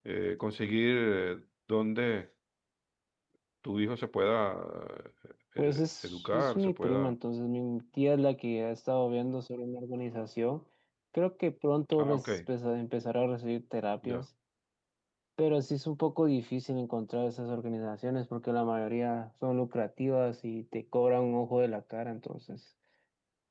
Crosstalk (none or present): present